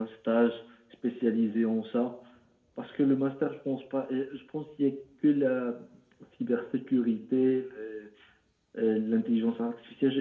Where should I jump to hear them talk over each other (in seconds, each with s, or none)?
none